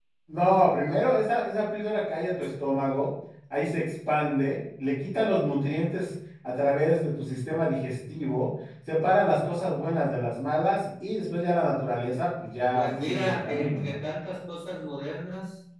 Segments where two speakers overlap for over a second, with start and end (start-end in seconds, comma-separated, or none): 12.7-14.0